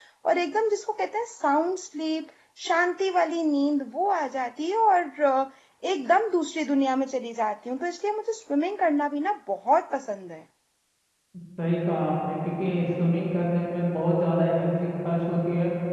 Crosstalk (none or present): none